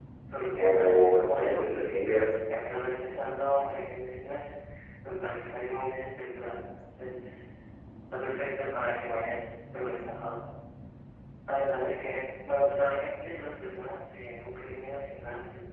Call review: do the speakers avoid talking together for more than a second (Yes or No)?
No